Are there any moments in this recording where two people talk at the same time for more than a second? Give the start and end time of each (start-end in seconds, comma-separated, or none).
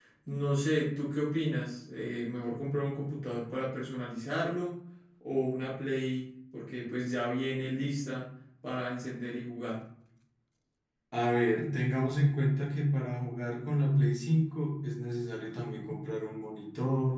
none